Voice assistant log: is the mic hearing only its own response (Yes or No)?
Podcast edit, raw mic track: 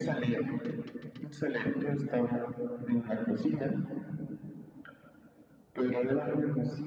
Yes